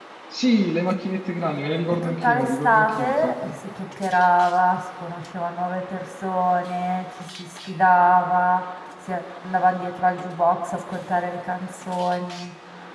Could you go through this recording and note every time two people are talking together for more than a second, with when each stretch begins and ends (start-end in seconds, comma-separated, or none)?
2.0-3.5